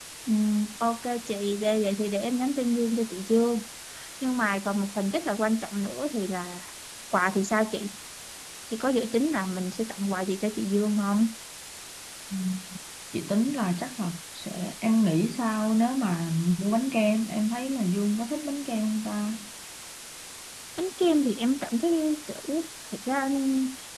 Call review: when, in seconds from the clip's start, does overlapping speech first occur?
none

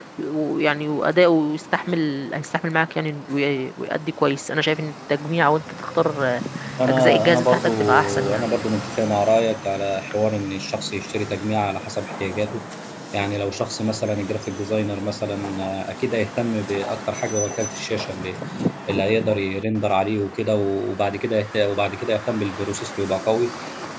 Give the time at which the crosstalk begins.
7 s

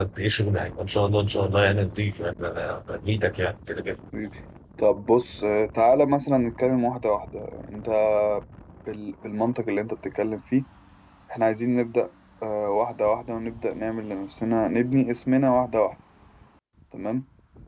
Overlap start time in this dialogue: none

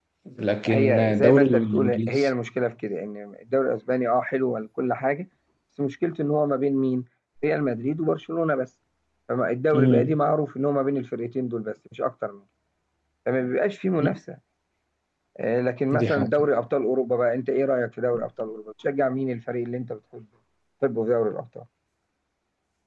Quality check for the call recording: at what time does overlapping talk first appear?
1 s

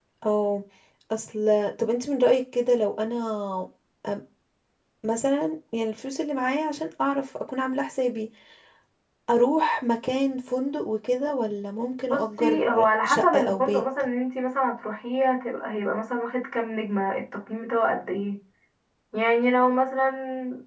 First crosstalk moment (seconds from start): 12 s

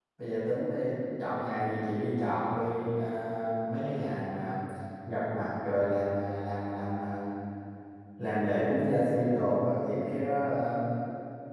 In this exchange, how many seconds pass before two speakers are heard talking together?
none

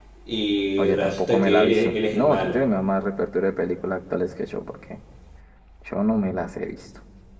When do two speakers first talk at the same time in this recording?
1 s

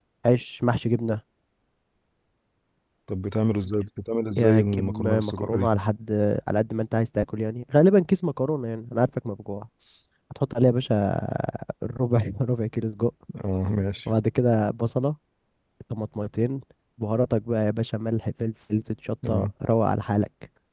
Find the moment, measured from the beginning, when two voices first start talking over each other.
4 s

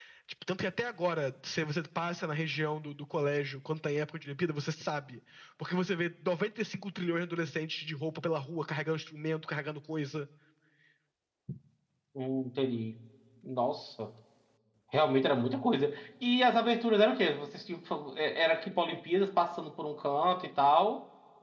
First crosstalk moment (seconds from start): none

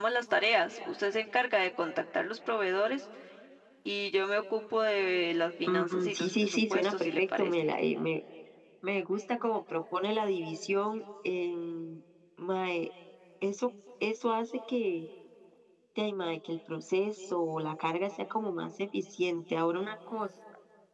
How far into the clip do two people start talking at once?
6 s

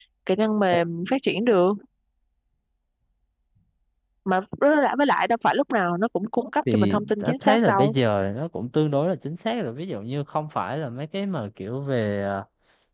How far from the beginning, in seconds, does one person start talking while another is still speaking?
7 s

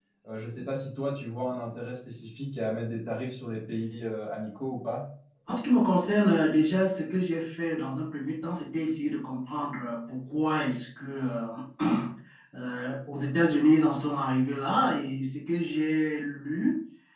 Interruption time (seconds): none

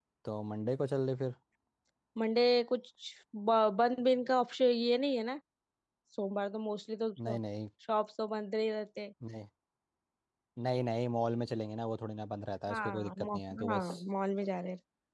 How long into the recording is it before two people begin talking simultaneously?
13 s

